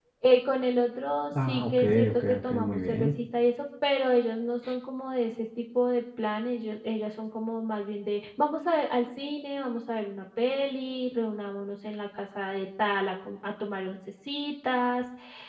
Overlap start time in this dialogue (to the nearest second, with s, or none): 1 s